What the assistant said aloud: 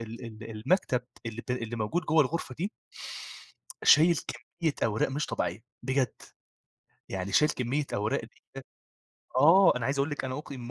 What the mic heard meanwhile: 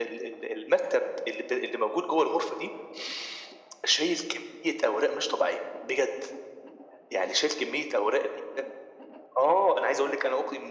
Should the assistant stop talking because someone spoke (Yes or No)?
No